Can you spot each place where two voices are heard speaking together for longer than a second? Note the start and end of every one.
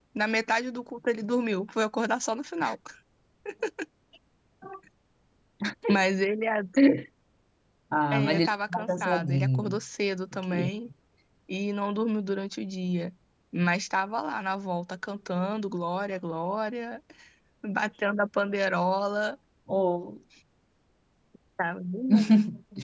8.1-9.8

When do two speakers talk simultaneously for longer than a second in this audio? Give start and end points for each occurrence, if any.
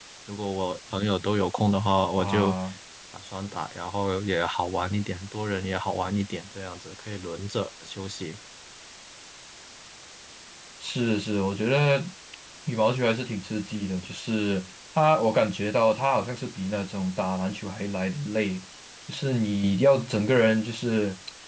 none

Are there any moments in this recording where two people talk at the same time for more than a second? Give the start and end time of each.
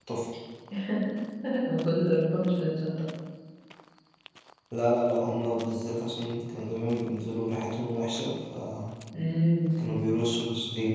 none

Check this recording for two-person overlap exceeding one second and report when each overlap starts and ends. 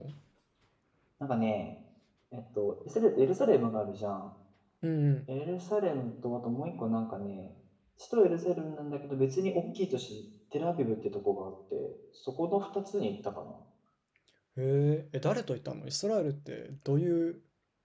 none

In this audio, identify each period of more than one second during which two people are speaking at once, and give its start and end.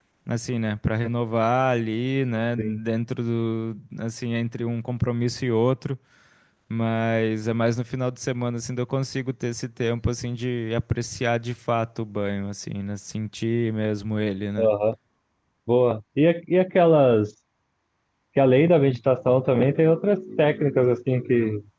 none

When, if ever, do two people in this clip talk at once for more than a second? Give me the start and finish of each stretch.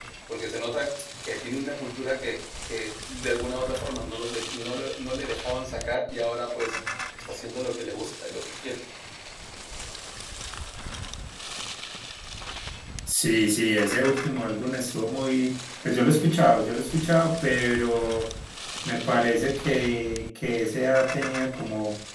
none

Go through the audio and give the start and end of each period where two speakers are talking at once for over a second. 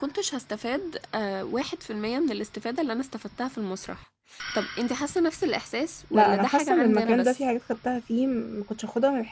6.1-7.5

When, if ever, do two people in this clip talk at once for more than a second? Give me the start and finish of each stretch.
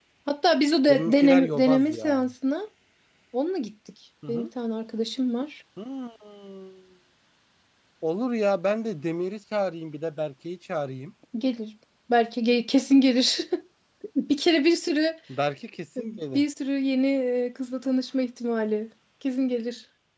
0.9-2.3

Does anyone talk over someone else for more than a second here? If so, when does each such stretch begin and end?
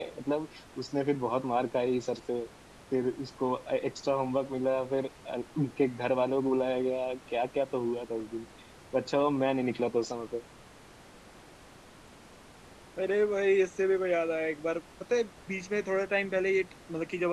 none

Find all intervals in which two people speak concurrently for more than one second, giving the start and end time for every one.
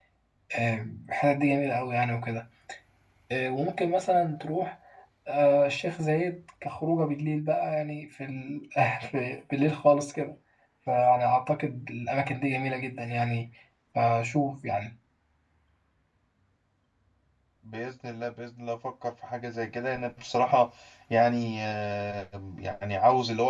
none

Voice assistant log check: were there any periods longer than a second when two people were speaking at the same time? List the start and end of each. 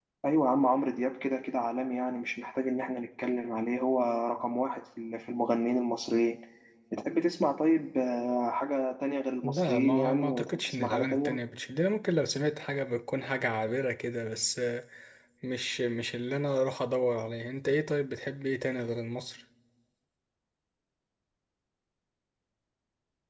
9.4-11.4

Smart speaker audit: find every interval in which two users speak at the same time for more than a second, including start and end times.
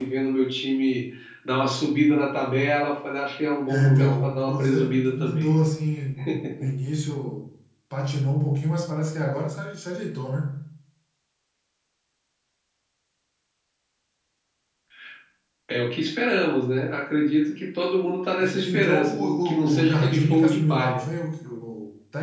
3.7-5.5, 18.6-21.1

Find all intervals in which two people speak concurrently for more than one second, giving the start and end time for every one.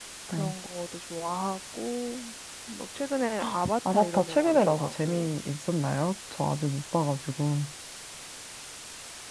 3.9-5.3

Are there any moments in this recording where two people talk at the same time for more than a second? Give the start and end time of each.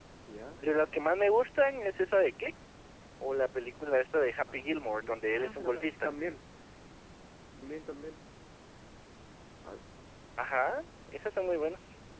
4.5-6.1

